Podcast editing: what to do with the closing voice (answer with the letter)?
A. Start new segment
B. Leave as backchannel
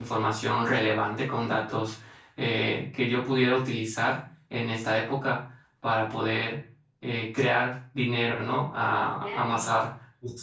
B